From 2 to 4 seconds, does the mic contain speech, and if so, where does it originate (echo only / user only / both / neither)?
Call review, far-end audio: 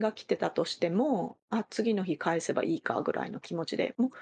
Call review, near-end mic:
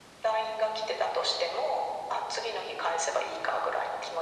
echo only